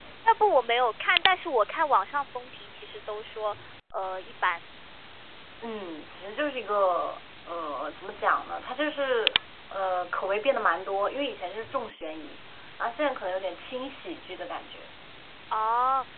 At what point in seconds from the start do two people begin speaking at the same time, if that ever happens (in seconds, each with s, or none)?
none